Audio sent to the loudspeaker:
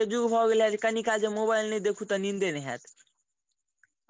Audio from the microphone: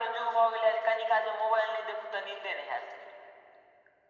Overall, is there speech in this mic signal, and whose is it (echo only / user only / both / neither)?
echo only